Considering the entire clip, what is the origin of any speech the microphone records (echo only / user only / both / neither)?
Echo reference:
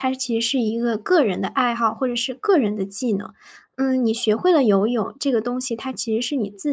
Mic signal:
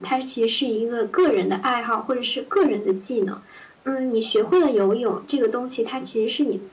echo only